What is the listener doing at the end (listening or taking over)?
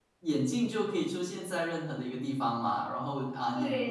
listening